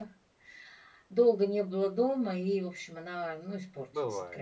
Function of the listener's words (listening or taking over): taking over